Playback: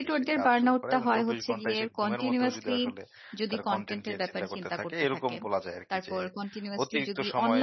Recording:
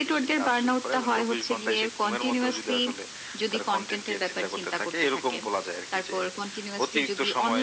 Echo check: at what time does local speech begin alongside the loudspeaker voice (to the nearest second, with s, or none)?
none